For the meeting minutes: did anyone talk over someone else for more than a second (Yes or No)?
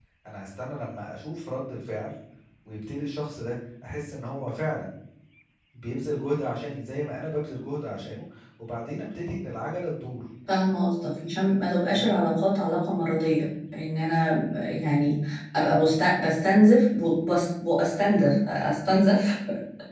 No